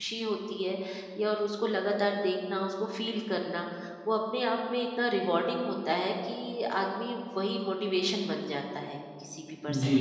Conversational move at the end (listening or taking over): taking over